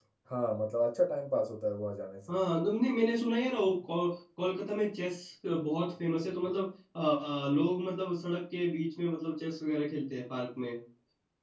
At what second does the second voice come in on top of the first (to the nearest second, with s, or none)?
none